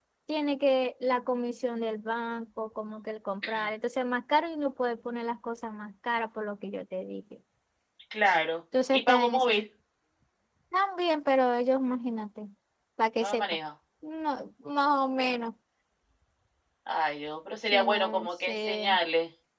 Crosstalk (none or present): present